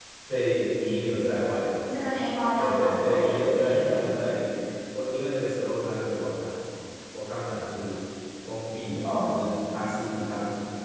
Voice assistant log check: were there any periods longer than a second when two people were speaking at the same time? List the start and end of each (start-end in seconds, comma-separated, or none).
2.6-4.1